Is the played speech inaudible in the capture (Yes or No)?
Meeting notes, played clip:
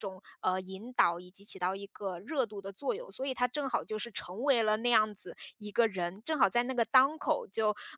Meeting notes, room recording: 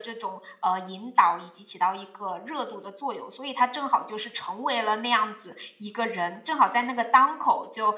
No